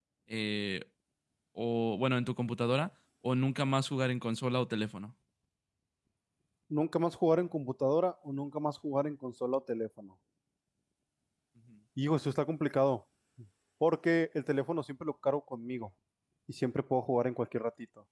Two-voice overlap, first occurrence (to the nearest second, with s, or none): none